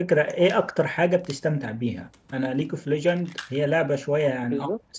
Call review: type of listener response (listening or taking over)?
listening